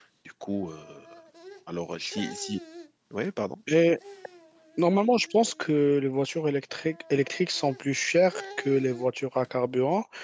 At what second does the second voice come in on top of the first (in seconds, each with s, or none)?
none